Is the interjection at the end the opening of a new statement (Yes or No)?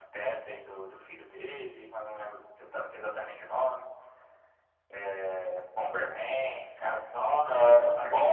Yes